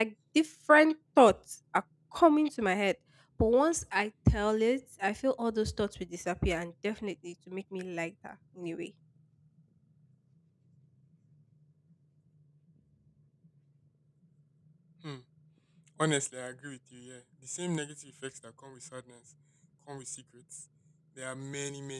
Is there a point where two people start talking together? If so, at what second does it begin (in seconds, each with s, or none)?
none